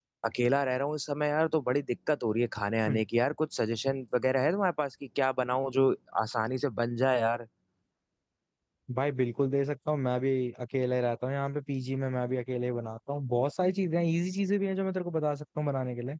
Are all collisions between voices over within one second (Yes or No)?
Yes